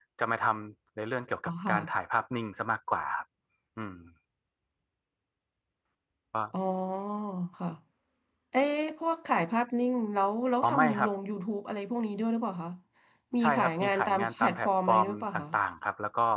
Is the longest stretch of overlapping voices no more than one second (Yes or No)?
No